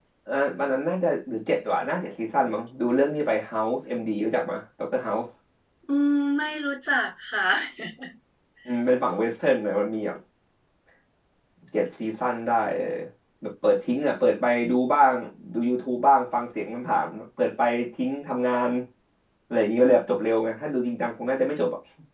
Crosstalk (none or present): none